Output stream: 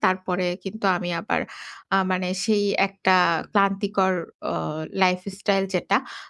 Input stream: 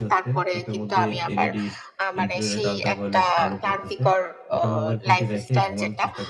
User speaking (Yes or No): Yes